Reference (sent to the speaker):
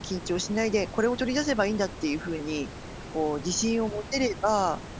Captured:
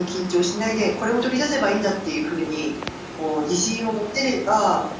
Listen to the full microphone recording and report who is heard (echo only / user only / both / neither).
echo only